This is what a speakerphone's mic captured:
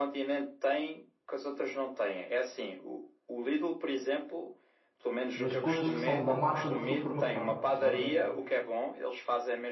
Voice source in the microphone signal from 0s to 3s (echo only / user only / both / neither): echo only